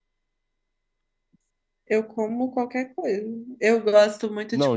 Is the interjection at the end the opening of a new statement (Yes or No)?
Yes